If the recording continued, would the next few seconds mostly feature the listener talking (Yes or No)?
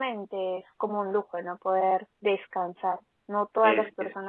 No